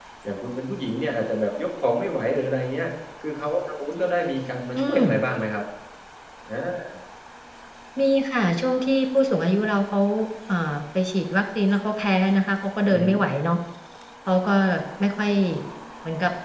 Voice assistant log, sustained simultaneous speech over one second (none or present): none